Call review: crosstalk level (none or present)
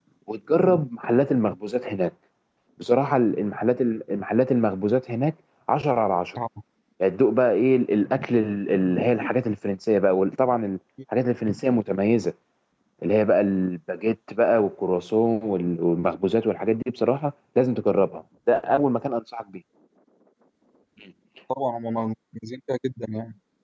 none